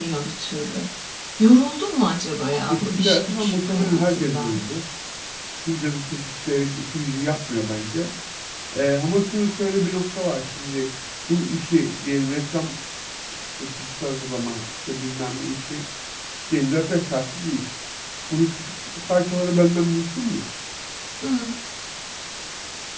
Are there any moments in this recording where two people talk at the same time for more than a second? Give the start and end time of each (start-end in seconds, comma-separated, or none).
2.7-4.6